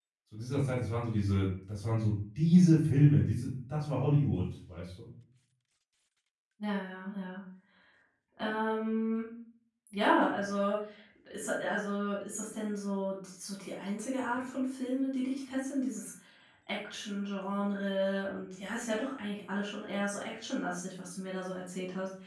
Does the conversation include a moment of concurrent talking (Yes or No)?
No